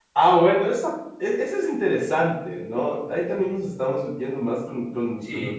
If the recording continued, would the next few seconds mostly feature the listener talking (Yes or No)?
Yes